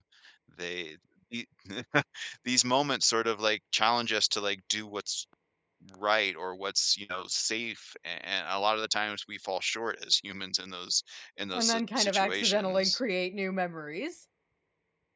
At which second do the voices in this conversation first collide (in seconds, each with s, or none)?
11.5 s